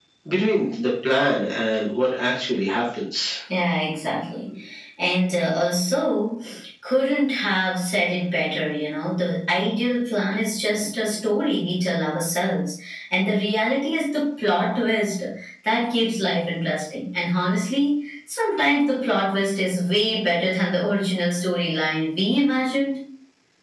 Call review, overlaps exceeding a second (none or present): none